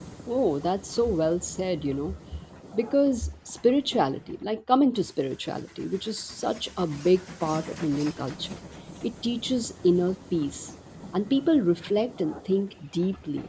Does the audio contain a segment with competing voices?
No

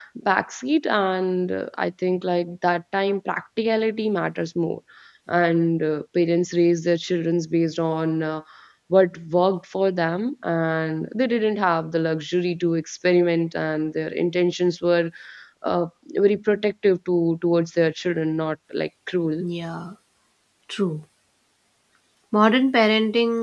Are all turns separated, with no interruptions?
Yes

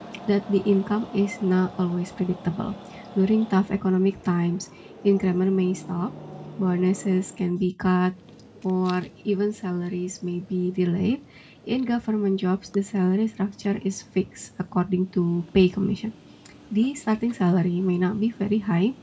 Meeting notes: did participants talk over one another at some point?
No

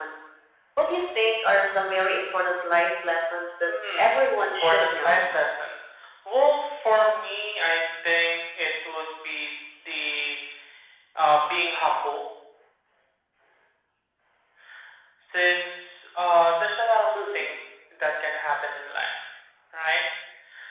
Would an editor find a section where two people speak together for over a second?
Yes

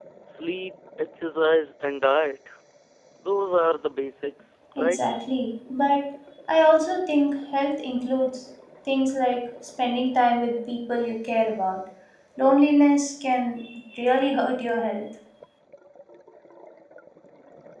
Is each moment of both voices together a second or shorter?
Yes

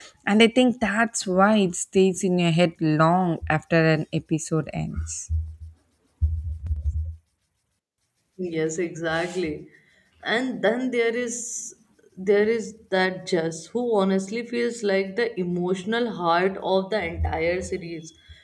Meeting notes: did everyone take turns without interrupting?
Yes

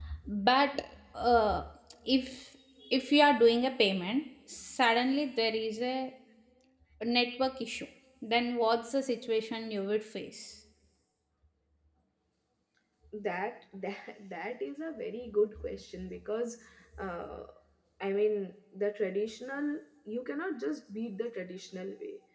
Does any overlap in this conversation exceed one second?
No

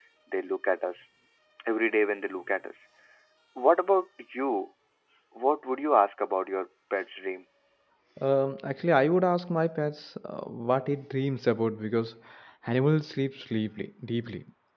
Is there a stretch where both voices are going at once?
No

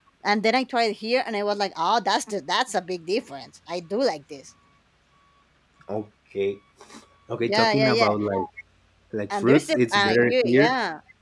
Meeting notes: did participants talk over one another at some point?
Yes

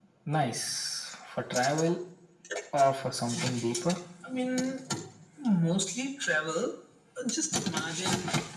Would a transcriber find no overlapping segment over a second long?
Yes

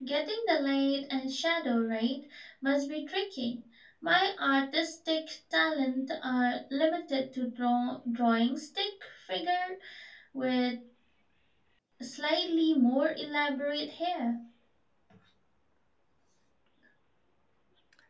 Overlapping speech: No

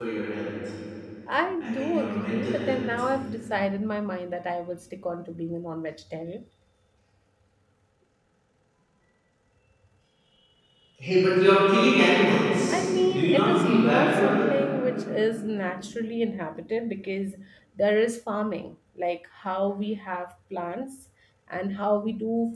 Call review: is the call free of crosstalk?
No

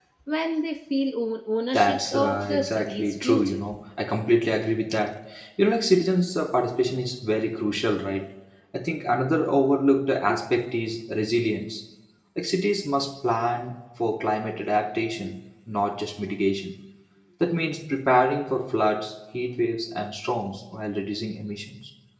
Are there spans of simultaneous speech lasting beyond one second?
Yes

